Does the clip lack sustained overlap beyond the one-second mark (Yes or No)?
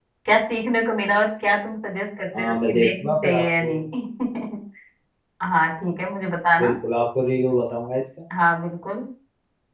No